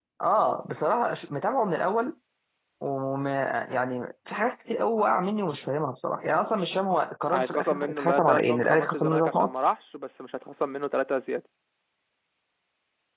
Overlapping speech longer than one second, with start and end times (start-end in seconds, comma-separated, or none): 7.3-9.5